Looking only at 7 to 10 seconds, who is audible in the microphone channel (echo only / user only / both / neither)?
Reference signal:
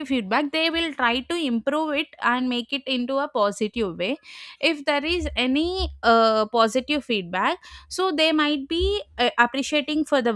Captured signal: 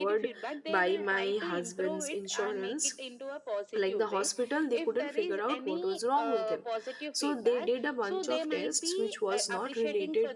both